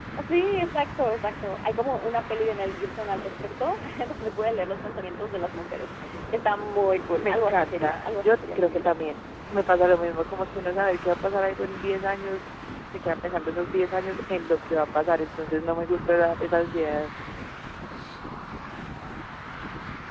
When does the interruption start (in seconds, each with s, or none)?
7.2 s